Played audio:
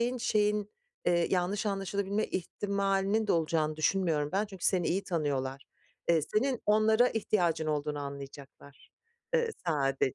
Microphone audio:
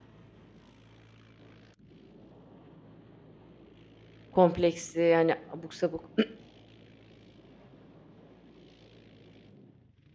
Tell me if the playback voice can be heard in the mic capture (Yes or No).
No